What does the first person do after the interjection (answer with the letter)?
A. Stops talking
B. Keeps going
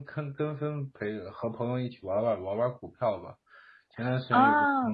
B